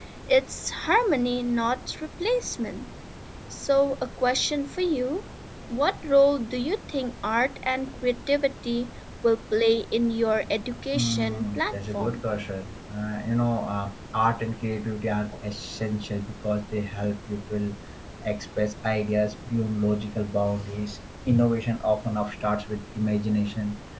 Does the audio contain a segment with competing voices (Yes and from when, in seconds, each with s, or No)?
Yes, from 10.9 s